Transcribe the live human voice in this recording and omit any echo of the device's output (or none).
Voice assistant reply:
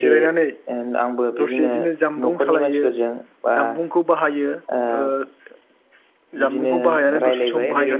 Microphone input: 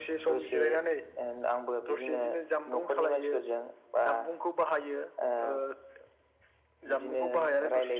none